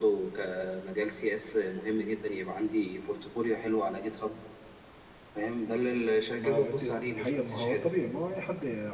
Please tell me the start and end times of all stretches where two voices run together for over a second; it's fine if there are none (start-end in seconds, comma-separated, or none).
6.4-7.9